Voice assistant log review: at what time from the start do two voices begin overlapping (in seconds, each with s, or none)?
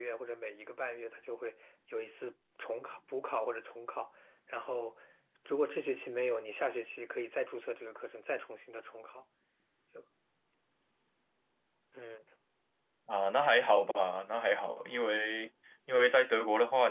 none